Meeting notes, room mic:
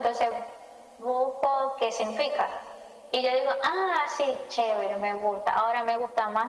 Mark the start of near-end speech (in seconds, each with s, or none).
none